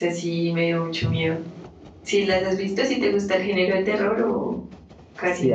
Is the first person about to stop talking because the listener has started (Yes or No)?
Yes